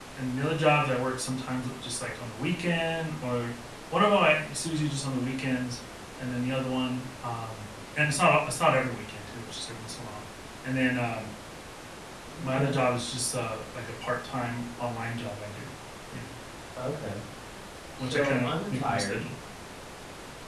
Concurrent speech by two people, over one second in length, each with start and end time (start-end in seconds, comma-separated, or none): 18.0-19.3